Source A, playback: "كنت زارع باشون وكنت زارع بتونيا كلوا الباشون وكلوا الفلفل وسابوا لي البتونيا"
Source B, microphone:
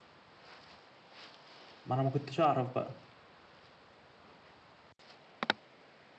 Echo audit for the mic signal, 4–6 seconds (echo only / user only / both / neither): neither